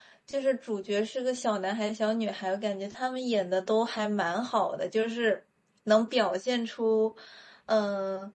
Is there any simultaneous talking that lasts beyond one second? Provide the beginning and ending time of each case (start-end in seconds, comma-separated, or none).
none